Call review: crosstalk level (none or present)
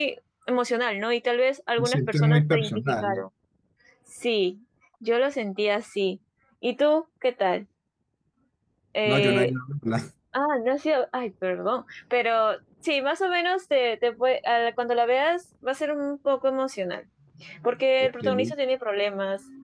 present